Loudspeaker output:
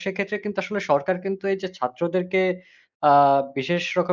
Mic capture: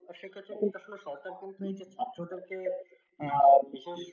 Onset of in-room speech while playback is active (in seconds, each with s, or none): none